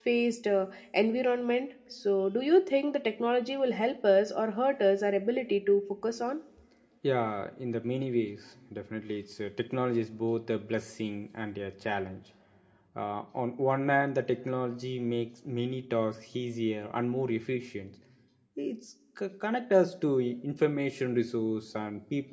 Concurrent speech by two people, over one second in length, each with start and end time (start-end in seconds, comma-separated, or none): none